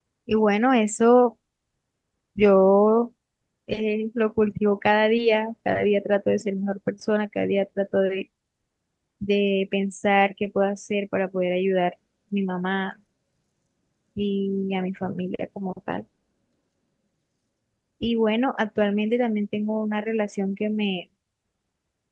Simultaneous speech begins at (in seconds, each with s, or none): none